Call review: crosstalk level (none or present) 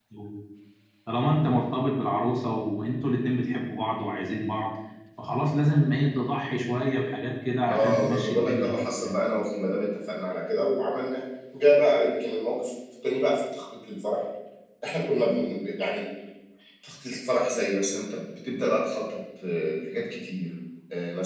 present